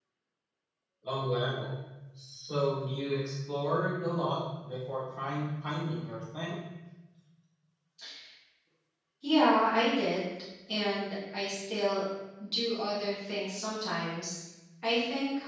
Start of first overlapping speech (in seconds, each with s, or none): none